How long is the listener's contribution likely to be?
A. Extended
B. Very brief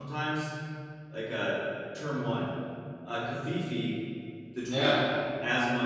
B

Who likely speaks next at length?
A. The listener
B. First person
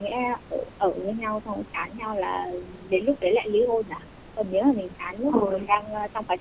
B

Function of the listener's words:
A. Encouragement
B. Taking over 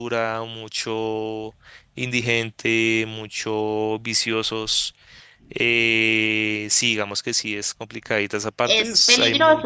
B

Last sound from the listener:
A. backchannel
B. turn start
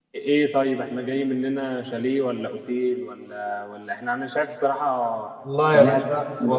B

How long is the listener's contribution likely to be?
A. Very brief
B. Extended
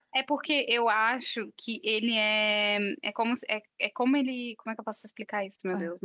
A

